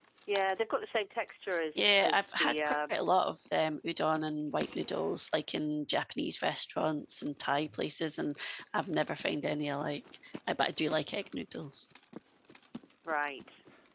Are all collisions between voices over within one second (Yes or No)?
No